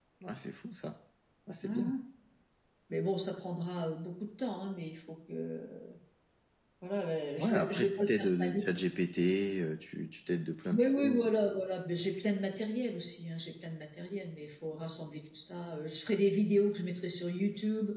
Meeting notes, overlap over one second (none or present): present